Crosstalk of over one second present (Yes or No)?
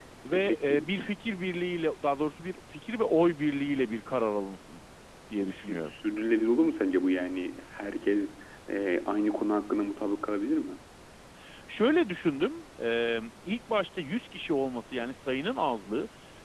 No